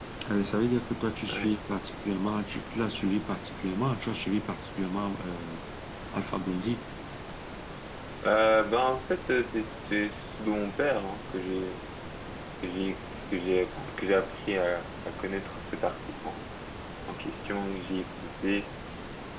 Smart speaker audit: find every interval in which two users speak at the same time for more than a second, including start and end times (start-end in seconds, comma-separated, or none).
none